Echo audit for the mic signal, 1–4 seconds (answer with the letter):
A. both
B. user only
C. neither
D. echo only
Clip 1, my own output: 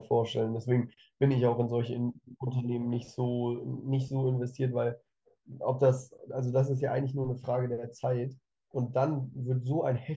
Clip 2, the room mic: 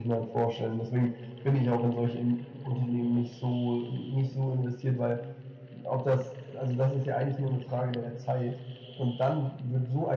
D